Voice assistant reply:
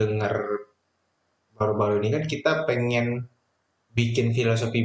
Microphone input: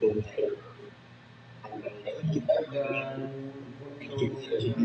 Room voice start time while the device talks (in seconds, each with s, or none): 2.7 s